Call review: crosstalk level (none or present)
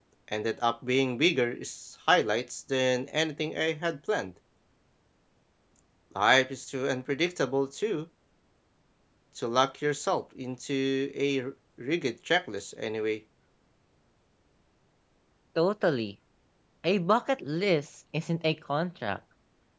none